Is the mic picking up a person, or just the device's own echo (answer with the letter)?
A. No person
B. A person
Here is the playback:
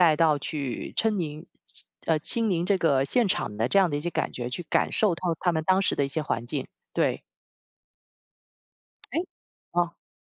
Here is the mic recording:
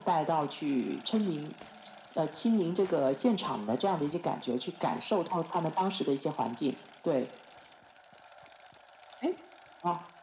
A